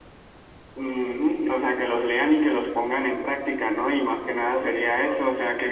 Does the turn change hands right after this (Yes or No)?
No